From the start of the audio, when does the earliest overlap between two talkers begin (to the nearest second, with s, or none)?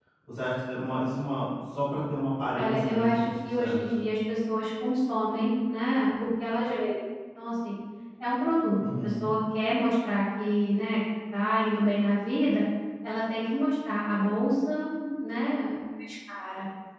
3 s